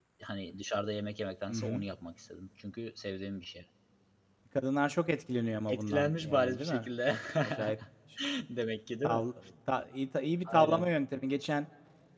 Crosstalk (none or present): present